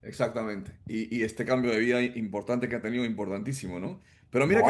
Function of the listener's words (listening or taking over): listening